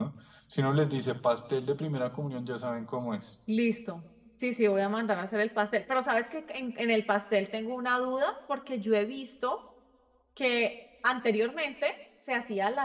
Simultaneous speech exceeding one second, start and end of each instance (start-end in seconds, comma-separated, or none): none